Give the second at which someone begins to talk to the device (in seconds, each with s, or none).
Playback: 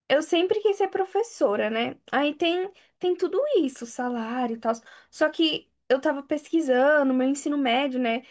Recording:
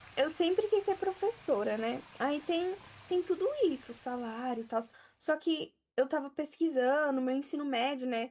none